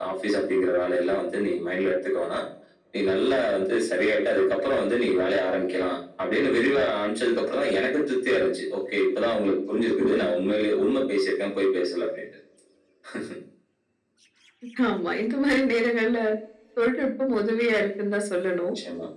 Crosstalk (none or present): none